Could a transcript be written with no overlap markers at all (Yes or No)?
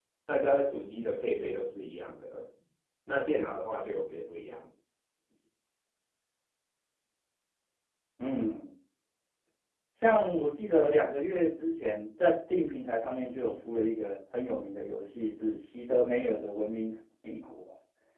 Yes